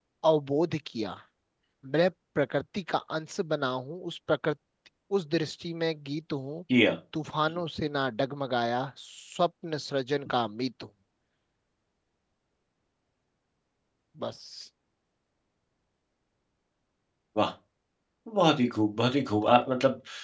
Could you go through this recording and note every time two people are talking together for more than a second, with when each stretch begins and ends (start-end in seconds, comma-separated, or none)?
none